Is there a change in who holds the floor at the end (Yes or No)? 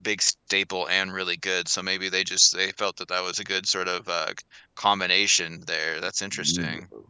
Yes